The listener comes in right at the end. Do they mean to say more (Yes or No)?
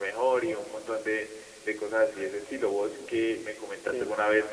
No